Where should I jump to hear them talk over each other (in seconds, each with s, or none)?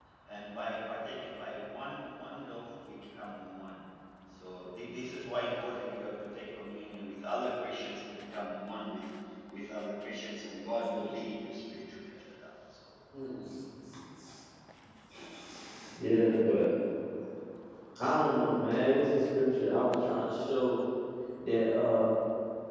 none